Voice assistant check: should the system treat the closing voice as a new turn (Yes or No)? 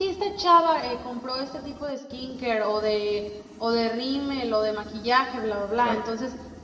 No